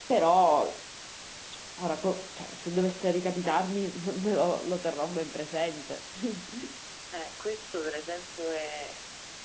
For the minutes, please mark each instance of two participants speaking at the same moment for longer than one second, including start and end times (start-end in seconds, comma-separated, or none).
none